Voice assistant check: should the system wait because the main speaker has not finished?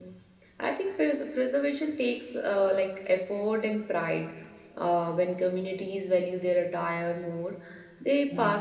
Yes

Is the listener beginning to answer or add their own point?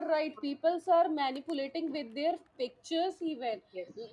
No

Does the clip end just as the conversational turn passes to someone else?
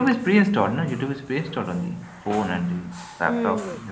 Yes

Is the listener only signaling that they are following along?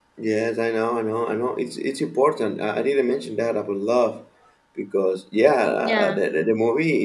Yes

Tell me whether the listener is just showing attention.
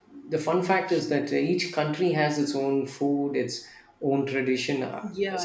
No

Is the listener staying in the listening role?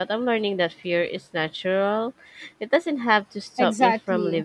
No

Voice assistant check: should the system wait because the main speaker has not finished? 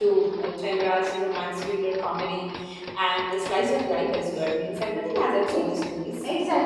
No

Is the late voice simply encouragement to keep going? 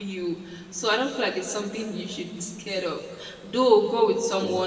Yes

